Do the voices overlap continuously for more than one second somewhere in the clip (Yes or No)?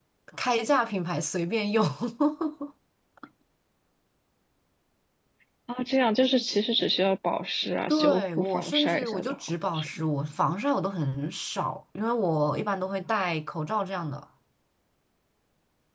Yes